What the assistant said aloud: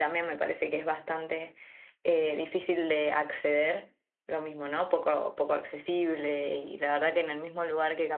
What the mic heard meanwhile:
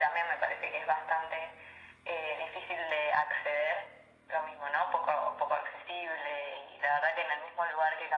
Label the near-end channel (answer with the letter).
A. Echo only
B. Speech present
A